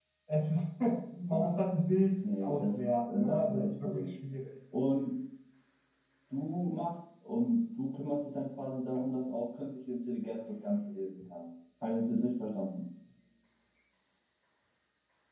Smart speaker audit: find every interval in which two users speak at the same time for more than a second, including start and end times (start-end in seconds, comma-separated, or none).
2.4-4.1